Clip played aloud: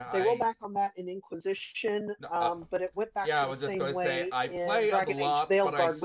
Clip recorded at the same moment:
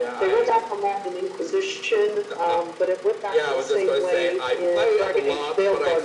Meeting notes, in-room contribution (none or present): none